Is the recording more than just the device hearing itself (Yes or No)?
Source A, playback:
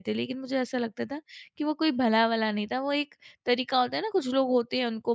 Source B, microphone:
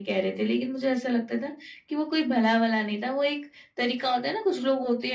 No